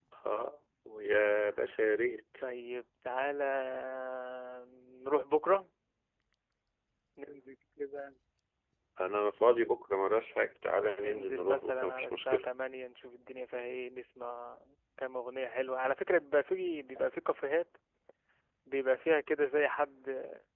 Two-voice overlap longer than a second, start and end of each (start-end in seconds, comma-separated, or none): 11.0-12.4